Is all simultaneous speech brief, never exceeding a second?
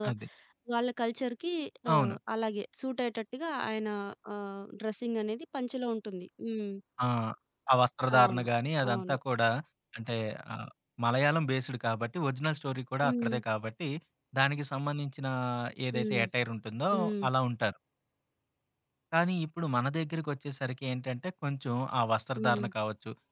Yes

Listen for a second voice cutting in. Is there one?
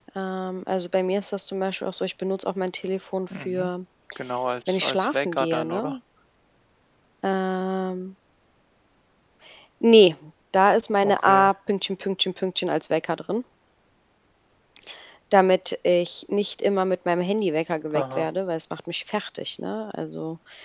Yes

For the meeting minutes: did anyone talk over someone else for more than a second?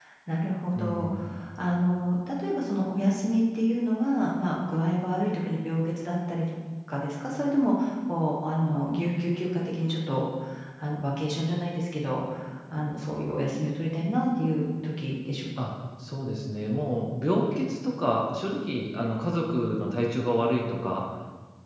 No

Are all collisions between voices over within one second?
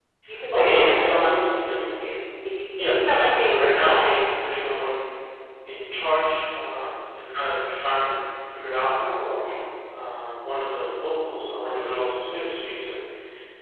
No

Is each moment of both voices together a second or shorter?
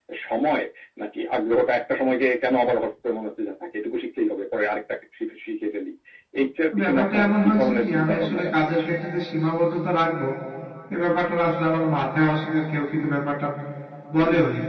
No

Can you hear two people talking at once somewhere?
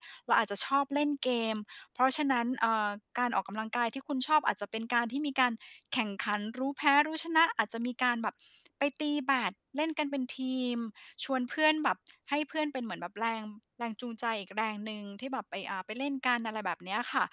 No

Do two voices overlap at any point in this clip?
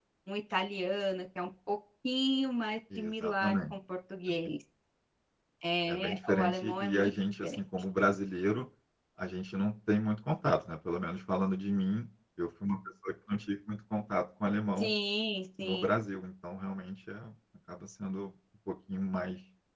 Yes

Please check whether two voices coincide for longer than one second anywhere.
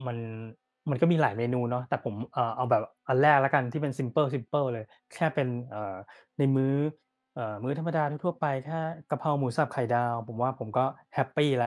No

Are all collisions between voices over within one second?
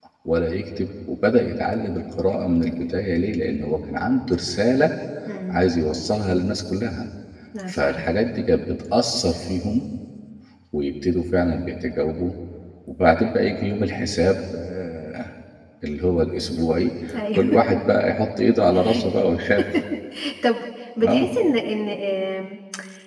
Yes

